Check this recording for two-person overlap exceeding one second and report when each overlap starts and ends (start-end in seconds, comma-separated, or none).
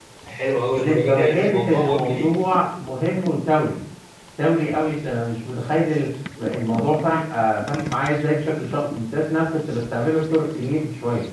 0.8-2.3